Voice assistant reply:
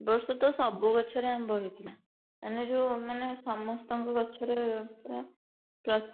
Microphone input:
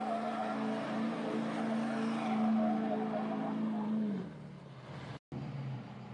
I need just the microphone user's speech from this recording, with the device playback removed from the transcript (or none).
none